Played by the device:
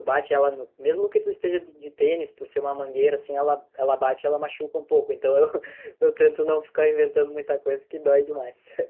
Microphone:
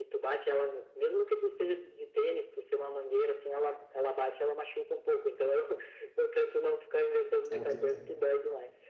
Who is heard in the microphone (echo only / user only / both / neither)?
both